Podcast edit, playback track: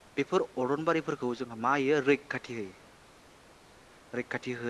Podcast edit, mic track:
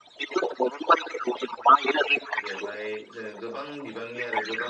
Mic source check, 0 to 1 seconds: echo only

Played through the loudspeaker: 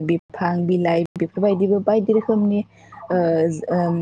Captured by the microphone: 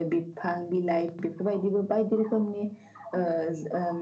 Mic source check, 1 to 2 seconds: echo only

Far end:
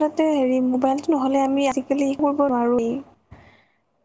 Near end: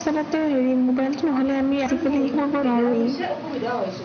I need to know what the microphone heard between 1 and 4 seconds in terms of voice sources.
both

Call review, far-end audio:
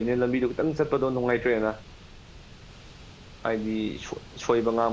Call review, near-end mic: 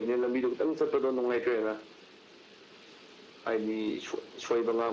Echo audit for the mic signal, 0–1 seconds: echo only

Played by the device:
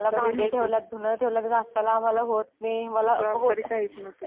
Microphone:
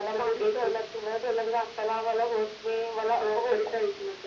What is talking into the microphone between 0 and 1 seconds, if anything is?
echo only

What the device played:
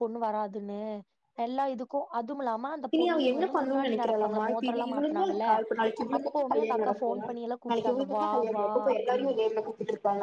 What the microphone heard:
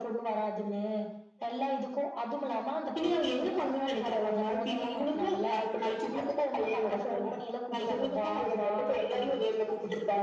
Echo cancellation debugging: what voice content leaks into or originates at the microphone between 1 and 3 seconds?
echo only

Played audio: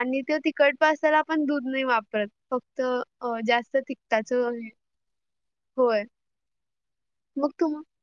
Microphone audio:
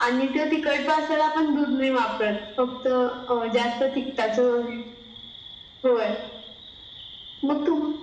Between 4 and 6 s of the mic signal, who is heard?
echo only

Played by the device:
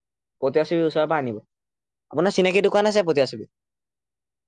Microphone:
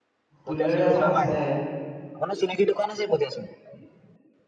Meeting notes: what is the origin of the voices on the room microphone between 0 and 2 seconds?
both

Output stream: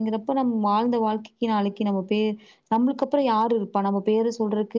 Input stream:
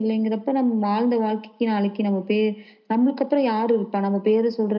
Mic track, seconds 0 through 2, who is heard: echo only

